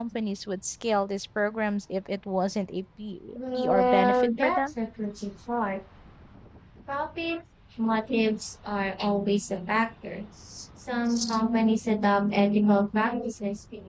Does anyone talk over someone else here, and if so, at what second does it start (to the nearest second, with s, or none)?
3 s